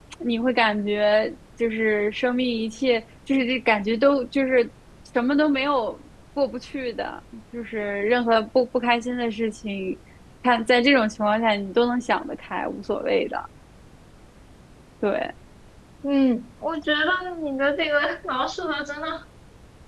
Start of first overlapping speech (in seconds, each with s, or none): none